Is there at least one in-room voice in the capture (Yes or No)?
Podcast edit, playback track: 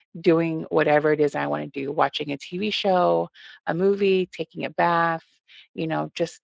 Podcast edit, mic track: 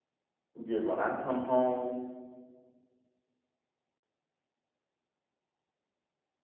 Yes